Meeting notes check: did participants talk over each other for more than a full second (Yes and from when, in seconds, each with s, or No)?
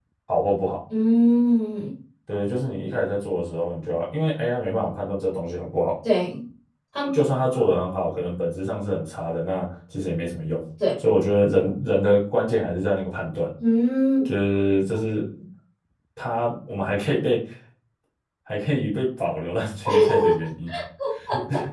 No